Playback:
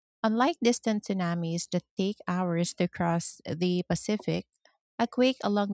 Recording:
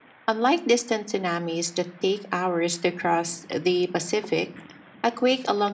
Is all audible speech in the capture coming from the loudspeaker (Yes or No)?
Yes